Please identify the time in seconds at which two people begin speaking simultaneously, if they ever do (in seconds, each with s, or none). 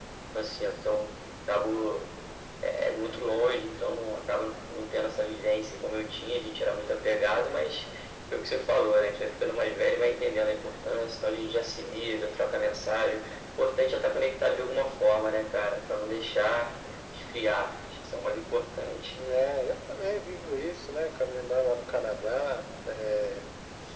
none